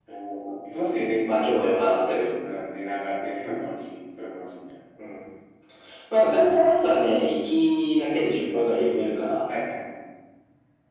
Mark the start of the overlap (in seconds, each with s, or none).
none